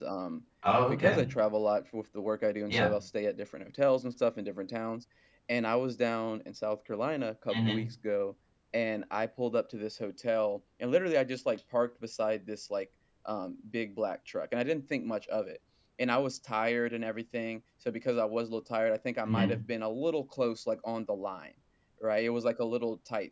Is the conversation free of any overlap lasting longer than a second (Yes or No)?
Yes